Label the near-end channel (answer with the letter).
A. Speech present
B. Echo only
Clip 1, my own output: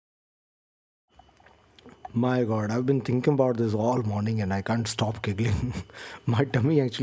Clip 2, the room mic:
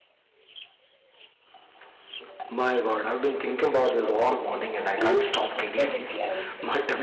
A